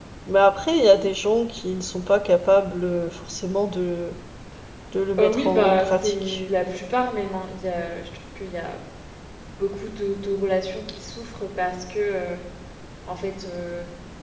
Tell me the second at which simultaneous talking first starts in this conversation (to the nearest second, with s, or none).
5 s